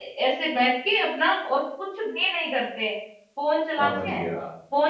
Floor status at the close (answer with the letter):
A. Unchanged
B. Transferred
A